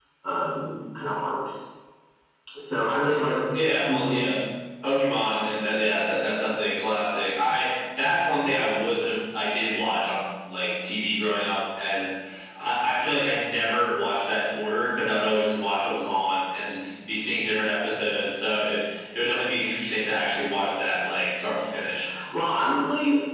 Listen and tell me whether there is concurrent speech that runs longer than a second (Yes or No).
No